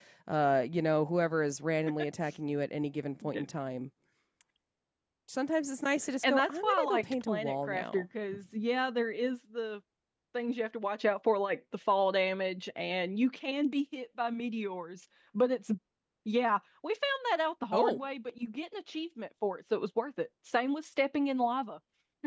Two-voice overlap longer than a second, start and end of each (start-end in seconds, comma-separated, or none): 6.2-8.1